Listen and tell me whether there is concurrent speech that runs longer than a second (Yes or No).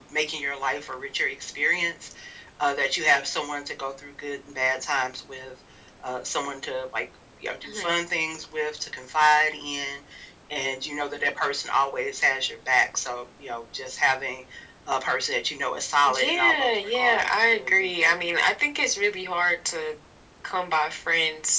Yes